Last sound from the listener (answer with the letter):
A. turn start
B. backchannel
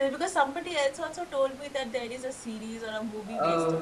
A